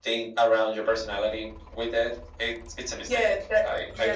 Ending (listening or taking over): taking over